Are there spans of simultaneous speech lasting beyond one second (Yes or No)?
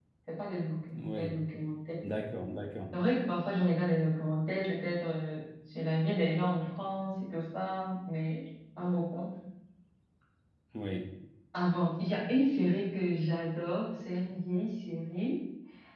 No